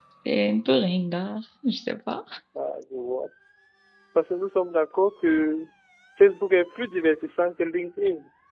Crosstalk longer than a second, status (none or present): none